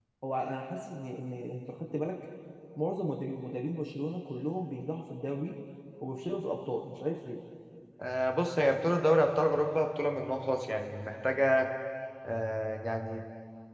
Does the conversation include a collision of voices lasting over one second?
No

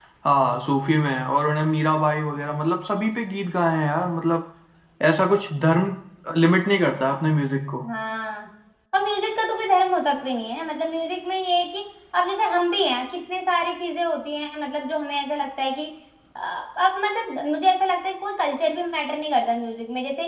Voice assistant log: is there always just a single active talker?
Yes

